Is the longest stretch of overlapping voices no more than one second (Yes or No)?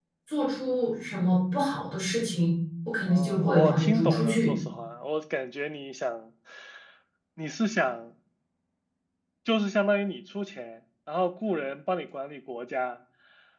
No